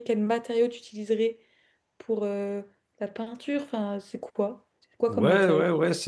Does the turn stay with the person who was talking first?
No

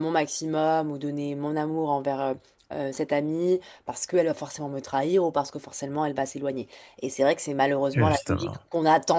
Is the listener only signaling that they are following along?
Yes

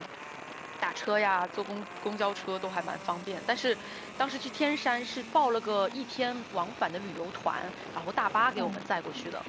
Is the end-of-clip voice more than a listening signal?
Yes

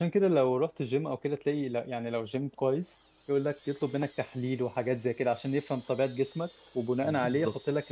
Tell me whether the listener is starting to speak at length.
No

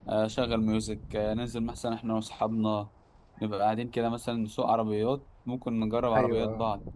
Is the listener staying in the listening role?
Yes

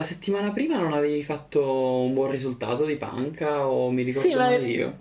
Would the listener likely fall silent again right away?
No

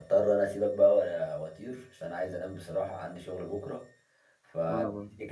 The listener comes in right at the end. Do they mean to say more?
No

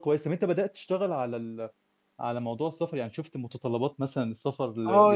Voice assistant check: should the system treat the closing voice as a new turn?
Yes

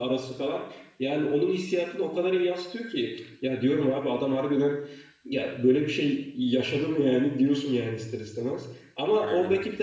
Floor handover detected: No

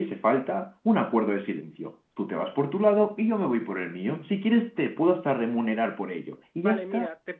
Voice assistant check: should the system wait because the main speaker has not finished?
No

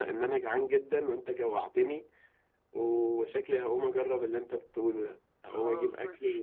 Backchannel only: Yes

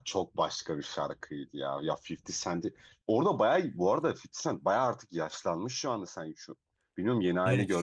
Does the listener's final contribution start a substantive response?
Yes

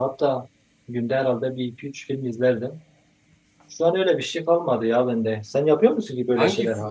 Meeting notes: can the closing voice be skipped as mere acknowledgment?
No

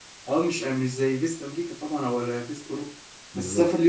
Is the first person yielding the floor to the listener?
No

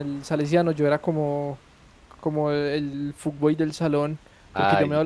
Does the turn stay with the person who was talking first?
Yes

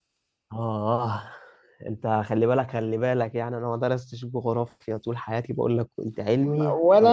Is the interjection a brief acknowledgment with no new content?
No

